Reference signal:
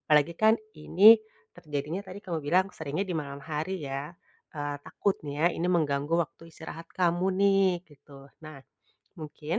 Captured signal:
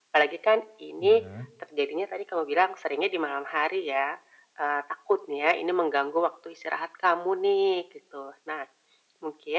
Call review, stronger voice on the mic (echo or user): echo